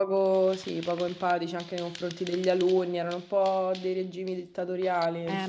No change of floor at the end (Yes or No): No